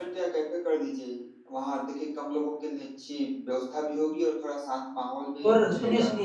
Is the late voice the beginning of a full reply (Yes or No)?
Yes